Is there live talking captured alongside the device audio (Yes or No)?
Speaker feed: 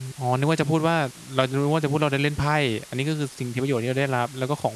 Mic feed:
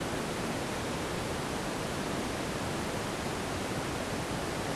No